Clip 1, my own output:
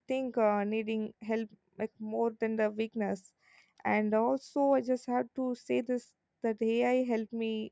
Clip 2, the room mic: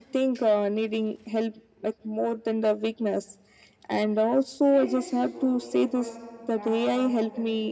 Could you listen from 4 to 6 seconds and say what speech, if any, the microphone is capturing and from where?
both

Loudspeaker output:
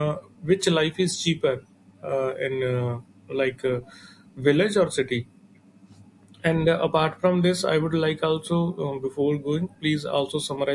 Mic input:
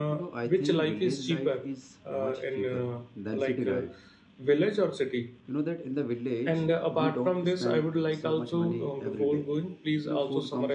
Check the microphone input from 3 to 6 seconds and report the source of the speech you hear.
both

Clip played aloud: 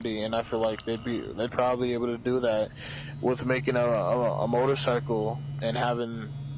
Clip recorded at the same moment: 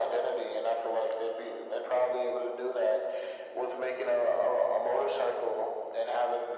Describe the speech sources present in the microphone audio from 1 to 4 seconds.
echo only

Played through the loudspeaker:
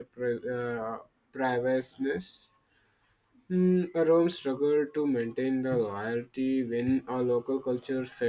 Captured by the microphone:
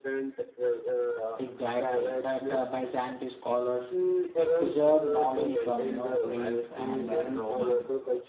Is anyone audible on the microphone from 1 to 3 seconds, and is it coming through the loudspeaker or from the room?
both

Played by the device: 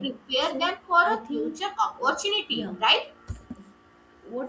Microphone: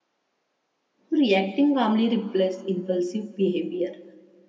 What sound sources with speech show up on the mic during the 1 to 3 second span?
user only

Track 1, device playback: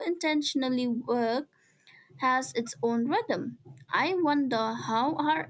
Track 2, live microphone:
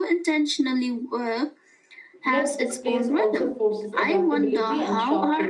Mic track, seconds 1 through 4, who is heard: both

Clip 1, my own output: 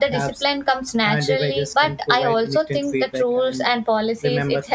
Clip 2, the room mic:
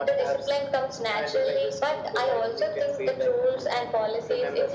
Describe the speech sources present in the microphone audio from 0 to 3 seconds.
echo only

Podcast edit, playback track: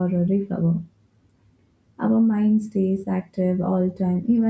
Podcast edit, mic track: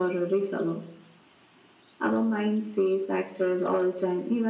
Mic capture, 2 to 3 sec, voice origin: echo only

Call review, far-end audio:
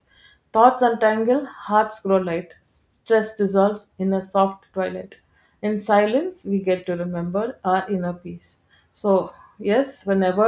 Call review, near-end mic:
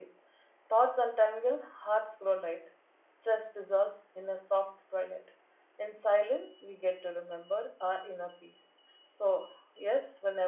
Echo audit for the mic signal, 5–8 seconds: echo only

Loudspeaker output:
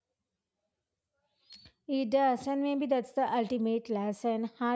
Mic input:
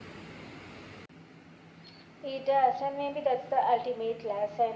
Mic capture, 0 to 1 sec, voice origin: neither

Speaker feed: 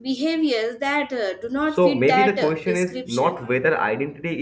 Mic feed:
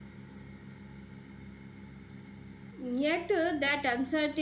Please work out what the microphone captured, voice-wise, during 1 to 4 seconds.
user only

